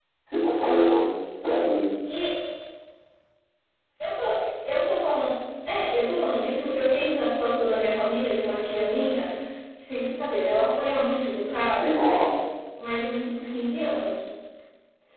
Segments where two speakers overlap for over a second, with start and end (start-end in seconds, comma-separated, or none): none